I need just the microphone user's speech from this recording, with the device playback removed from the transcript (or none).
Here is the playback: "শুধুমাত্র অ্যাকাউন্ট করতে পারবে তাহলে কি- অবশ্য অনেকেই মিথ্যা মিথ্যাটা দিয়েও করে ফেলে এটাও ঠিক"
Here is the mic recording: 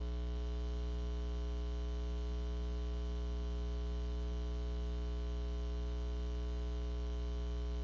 none